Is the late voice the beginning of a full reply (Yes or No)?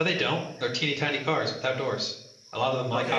Yes